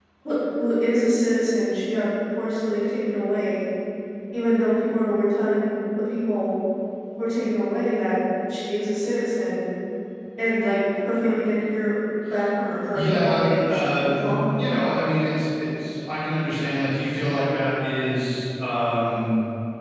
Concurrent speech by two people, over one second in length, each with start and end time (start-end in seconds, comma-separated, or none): 12.9-14.7